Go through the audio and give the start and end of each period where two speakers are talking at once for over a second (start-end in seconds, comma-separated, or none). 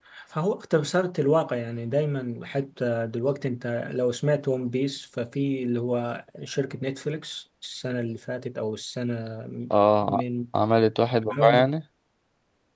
none